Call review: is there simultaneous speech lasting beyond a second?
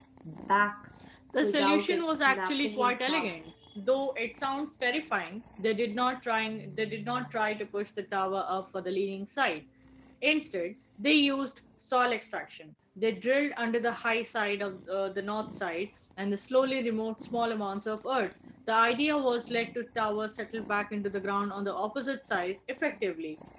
Yes, from 1.4 s

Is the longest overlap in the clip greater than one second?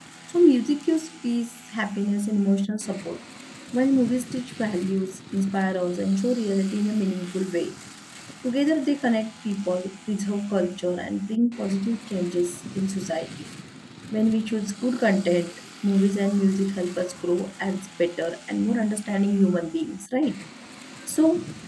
No

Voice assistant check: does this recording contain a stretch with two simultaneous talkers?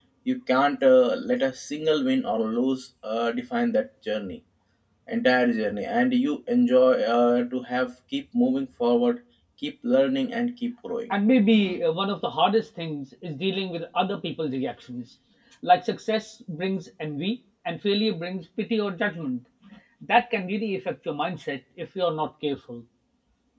No

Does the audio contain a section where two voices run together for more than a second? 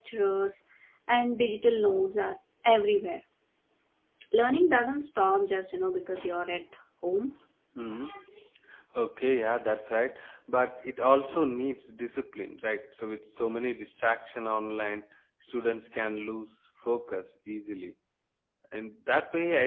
No

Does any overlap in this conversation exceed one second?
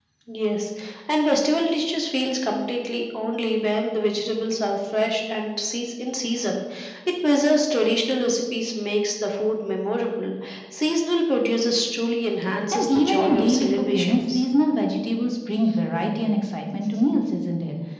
Yes, from 12.7 s

